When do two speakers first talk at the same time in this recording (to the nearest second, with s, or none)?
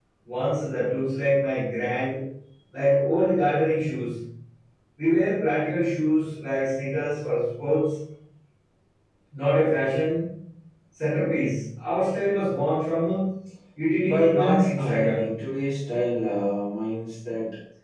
14 s